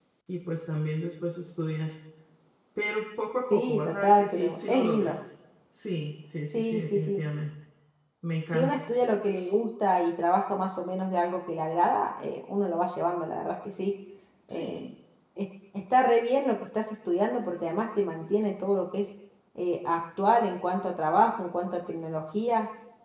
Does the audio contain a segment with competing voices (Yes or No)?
Yes